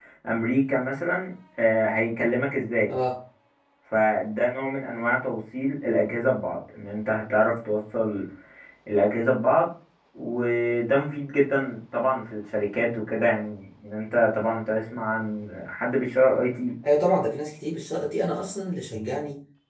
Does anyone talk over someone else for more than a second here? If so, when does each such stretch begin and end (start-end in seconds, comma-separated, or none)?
none